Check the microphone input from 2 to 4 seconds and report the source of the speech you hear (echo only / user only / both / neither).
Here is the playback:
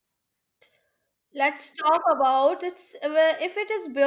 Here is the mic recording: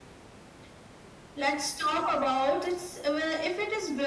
echo only